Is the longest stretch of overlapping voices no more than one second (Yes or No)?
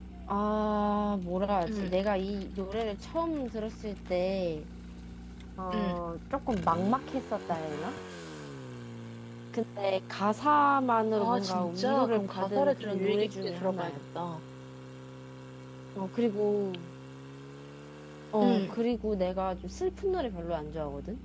No